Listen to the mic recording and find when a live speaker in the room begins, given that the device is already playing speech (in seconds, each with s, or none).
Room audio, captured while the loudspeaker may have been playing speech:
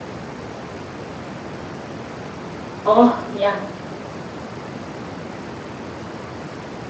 2.8 s